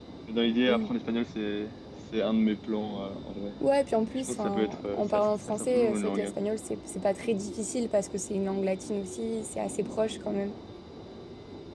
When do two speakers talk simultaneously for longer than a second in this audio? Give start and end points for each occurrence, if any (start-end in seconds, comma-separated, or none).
4.3-6.4